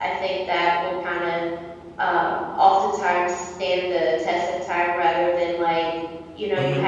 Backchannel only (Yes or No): Yes